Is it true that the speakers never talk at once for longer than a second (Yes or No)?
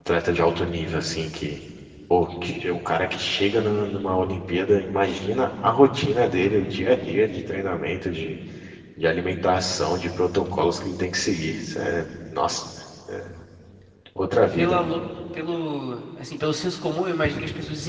Yes